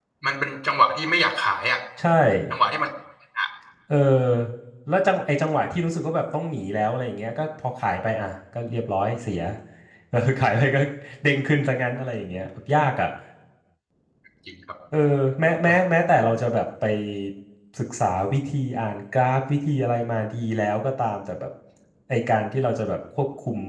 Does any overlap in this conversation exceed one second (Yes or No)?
No